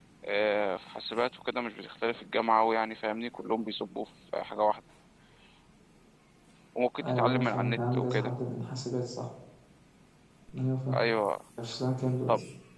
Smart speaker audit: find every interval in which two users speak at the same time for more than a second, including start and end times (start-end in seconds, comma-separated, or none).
7.1-8.3